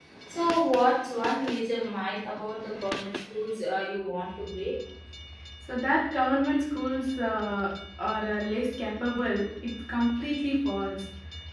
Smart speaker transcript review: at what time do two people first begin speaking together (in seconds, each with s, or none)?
none